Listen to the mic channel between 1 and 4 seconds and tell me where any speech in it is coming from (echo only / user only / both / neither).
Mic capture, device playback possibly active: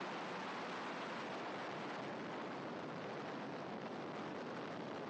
neither